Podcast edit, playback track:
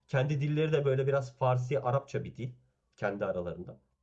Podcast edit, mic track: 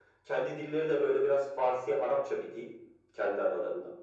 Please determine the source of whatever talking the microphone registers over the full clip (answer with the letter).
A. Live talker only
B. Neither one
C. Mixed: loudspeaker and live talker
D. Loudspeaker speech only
D